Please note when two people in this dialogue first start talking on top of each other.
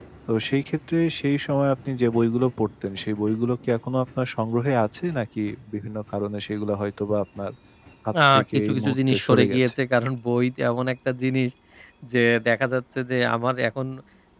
8.3 s

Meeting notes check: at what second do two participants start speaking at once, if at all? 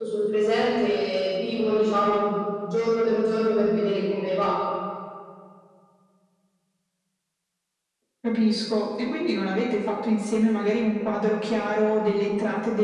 none

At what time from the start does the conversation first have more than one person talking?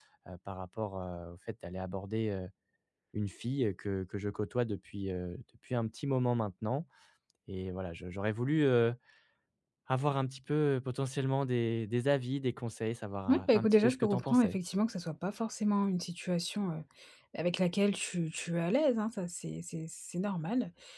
13.3 s

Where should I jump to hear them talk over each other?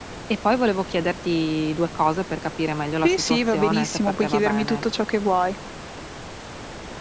3.0 s

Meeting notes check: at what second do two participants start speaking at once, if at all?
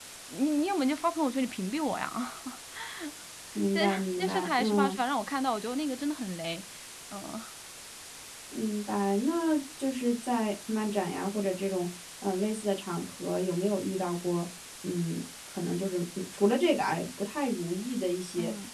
3.7 s

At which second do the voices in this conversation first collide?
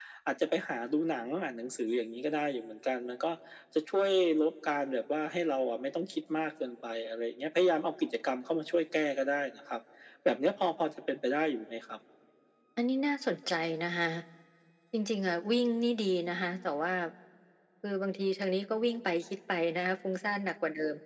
none

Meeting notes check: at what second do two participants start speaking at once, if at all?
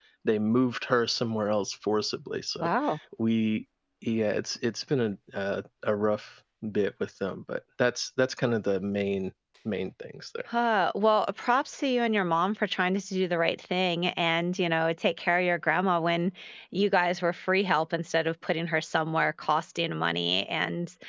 none

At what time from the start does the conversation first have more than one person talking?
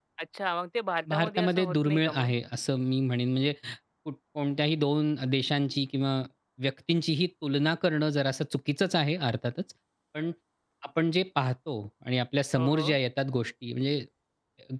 1.1 s

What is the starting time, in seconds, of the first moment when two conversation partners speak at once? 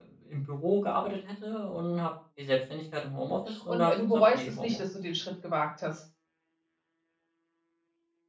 3.2 s

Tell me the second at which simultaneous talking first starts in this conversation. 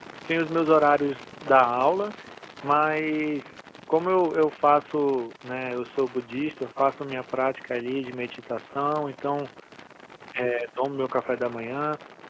none

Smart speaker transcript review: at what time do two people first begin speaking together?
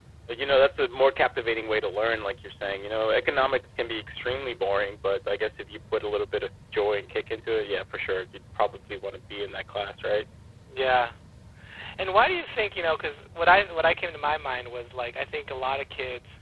none

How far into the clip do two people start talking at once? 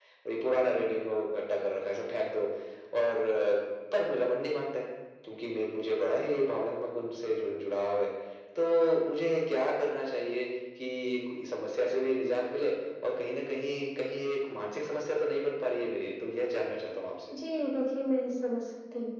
none

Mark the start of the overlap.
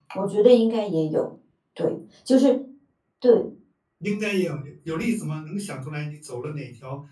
none

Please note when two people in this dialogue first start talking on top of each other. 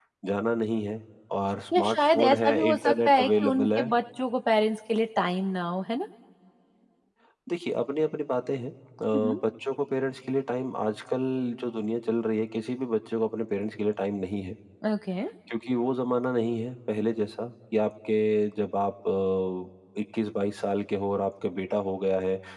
1.7 s

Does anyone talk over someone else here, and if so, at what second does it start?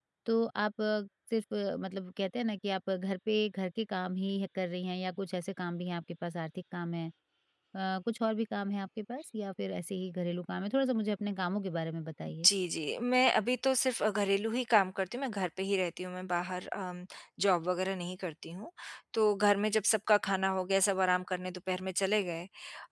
none

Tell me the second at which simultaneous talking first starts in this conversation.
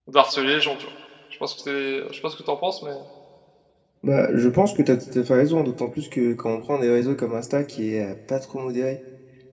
none

